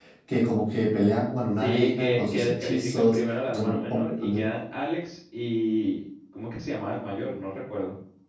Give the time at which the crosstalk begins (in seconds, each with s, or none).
1.6 s